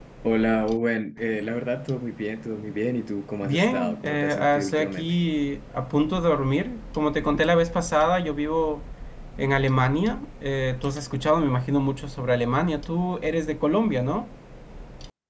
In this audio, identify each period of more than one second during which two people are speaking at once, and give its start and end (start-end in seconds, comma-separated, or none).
3.4-5.1